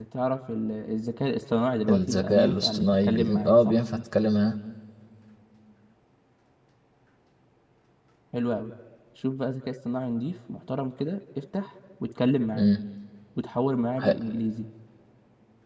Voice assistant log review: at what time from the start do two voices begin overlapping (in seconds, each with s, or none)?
1.9 s